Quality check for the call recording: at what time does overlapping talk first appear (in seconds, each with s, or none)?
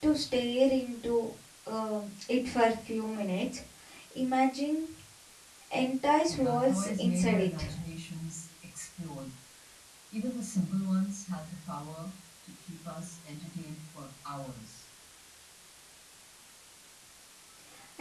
6.3 s